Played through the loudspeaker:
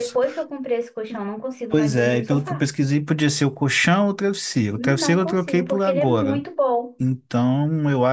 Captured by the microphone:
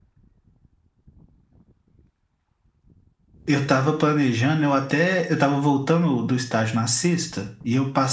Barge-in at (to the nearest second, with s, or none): 3 s